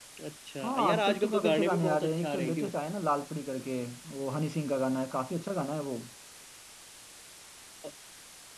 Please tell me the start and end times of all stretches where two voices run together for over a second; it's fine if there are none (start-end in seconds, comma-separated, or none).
0.6-2.7